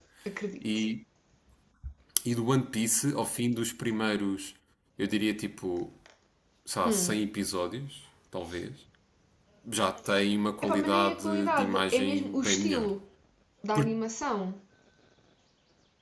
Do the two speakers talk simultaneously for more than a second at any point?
Yes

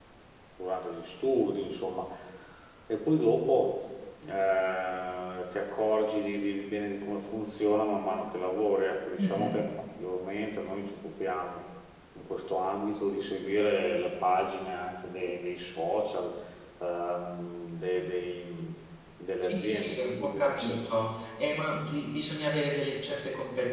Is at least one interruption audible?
Yes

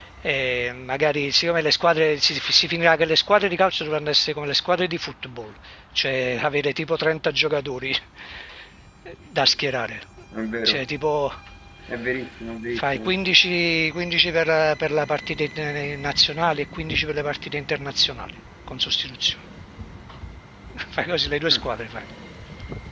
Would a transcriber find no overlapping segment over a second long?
Yes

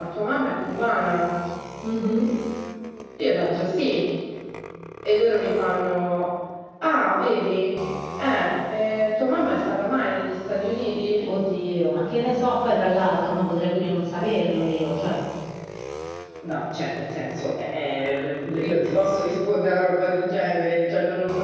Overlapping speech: No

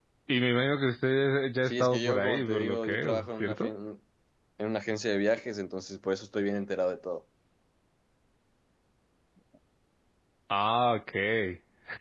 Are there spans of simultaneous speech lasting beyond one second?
Yes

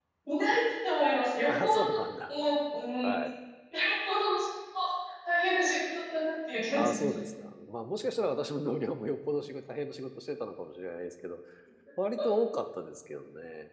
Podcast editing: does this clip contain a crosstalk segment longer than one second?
No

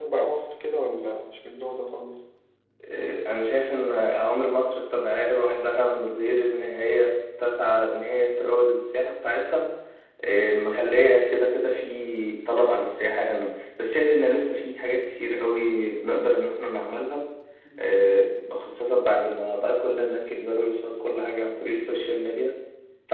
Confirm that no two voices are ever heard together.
Yes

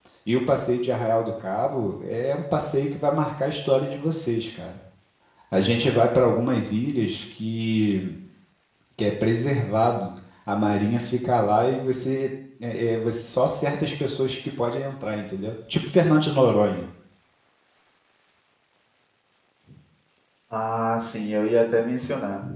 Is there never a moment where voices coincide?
Yes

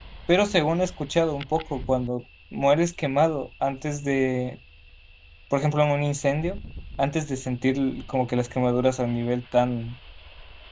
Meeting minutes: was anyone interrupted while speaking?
No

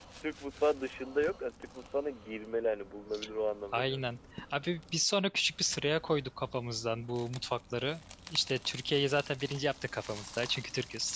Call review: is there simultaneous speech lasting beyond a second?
No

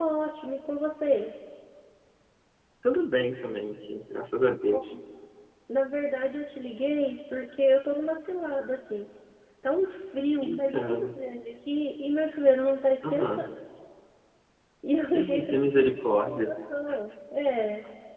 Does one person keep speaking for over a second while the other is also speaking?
Yes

